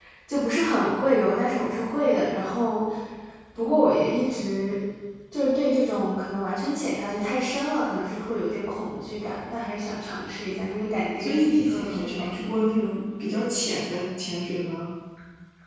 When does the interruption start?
11.2 s

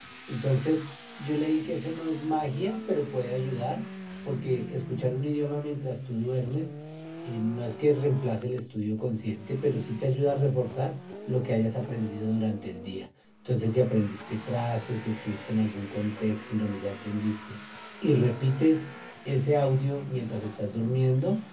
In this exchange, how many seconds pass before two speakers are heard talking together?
none

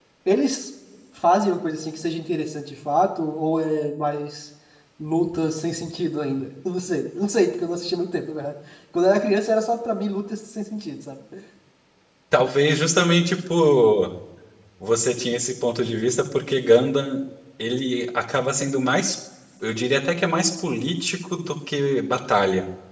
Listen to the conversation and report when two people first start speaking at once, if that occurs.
none

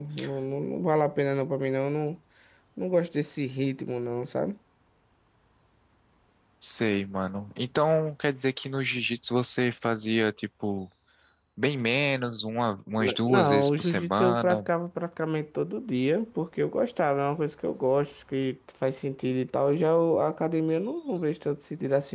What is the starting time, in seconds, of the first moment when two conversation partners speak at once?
13.0 s

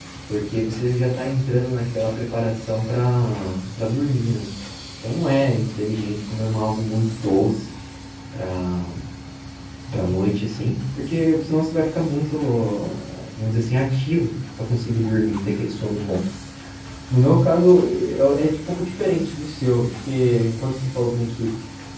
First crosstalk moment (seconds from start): none

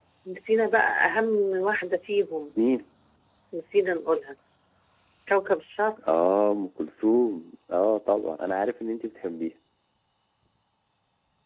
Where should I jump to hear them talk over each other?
none

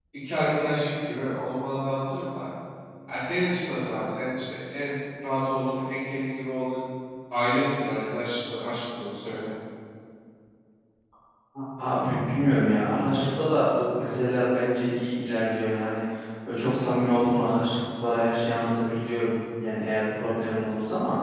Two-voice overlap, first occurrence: none

